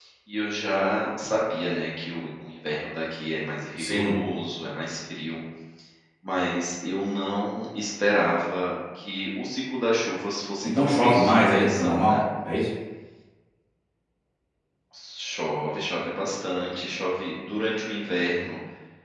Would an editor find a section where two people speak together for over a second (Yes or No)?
Yes